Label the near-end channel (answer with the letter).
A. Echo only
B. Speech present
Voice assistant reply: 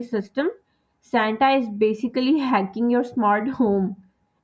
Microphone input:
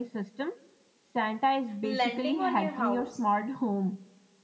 B